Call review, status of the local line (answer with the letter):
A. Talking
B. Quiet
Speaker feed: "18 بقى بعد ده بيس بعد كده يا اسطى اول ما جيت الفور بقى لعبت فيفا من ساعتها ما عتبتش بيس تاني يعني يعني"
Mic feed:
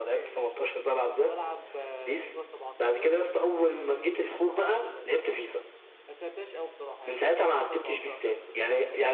A